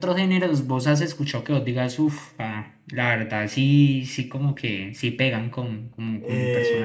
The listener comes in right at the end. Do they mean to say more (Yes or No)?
Yes